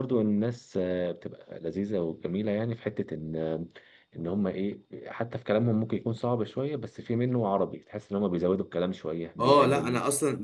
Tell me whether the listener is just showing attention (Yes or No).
No